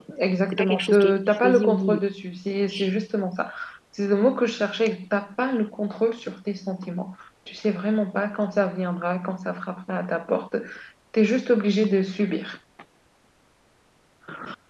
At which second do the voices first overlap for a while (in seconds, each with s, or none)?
0.5 s